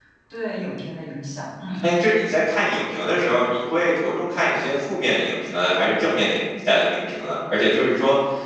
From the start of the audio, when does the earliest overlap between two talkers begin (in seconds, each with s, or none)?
none